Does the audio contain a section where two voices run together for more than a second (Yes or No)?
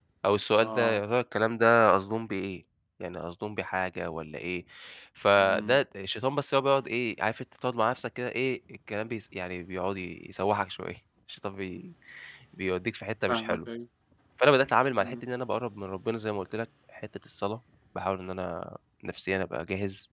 No